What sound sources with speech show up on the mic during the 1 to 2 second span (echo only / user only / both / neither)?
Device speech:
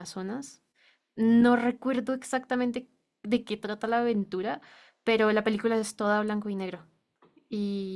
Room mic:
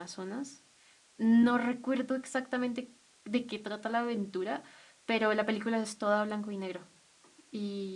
echo only